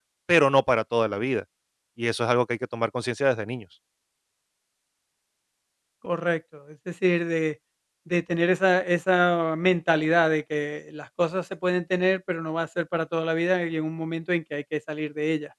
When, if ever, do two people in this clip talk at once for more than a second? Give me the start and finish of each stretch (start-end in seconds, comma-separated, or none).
none